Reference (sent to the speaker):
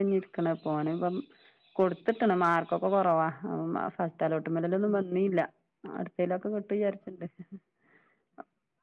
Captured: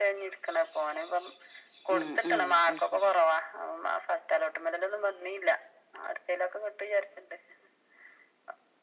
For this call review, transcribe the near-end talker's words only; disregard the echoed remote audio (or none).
ആഹ് ആഹ് അത് ശരി